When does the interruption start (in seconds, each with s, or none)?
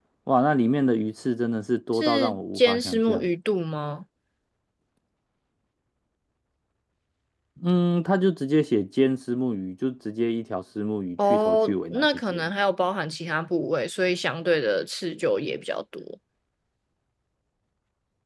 1.9 s